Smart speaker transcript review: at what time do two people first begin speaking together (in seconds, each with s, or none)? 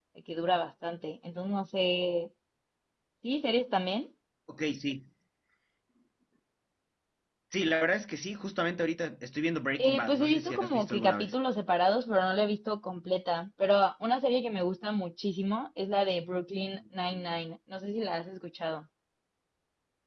9.8 s